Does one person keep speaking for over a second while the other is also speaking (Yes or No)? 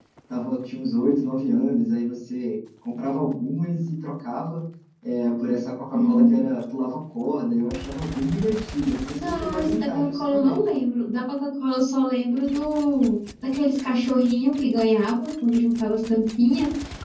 Yes